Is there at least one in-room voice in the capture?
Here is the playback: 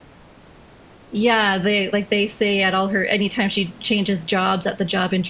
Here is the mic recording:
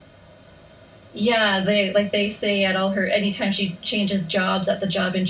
No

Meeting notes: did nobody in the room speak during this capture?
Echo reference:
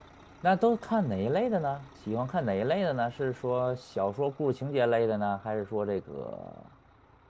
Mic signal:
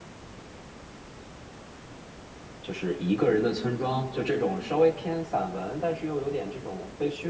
No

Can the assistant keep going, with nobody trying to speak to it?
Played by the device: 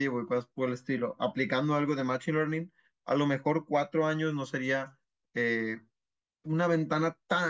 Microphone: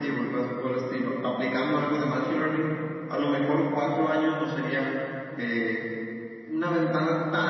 Yes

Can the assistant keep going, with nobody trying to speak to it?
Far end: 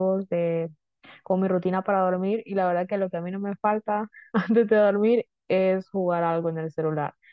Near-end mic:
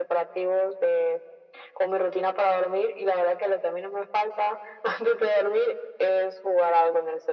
Yes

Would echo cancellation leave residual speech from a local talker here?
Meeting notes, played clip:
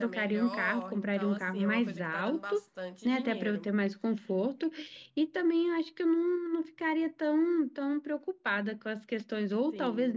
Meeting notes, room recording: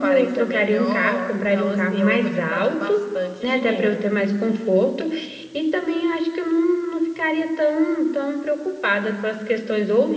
No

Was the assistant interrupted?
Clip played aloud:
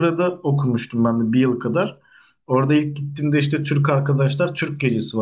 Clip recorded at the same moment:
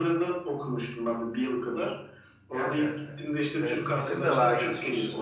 Yes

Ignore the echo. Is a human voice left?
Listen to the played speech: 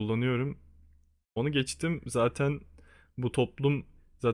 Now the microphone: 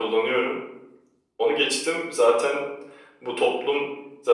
No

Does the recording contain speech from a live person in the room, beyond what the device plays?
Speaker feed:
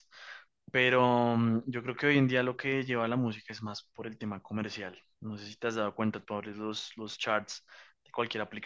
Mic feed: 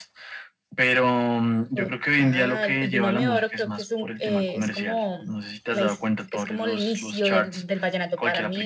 Yes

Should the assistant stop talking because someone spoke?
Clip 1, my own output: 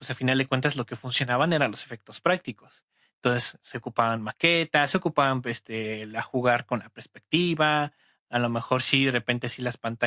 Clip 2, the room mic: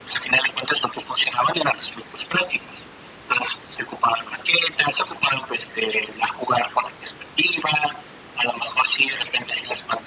No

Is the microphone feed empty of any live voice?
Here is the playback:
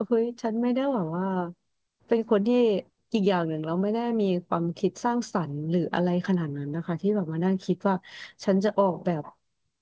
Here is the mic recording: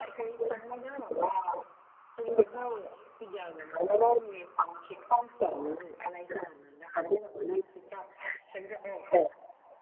Yes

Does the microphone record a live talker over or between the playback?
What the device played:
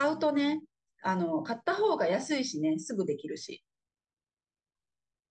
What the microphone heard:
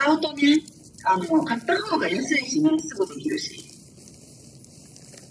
No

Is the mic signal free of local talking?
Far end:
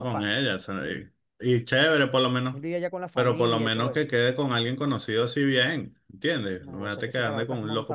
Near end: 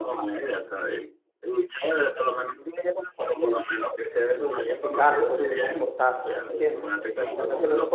No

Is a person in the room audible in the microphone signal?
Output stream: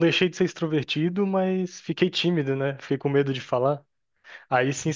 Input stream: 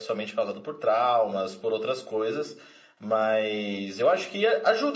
Yes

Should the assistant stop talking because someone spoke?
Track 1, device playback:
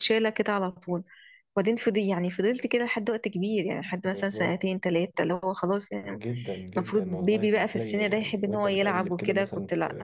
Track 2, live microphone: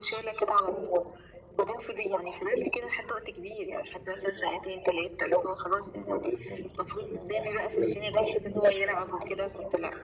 No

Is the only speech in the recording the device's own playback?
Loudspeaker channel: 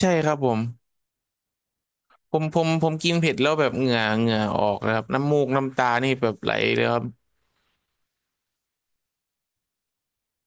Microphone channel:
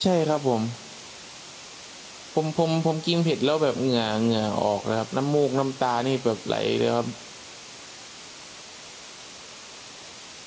Yes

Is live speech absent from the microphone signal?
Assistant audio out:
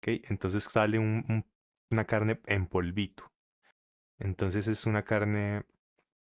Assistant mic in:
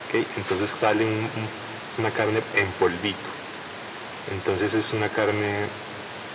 Yes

